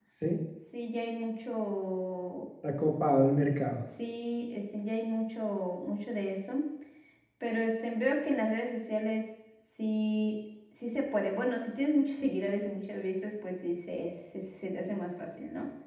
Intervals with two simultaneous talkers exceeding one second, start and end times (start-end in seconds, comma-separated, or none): none